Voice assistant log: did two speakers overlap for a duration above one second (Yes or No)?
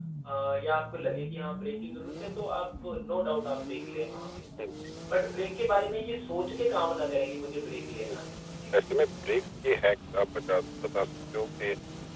No